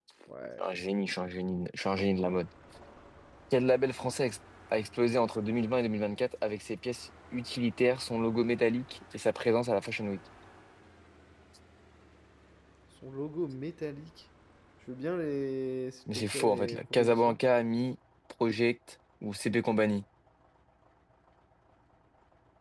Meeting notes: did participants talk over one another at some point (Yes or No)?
Yes